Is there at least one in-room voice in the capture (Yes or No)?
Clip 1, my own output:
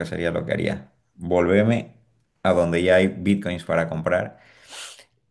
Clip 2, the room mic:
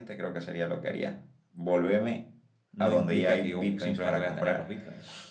Yes